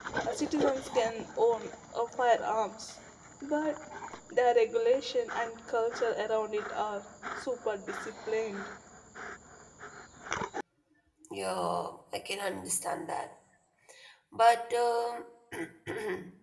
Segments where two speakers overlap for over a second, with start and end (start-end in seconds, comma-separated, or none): none